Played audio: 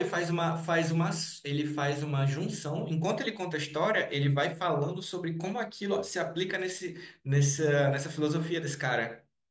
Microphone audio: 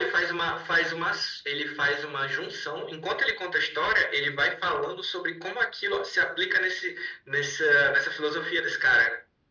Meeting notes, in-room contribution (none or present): none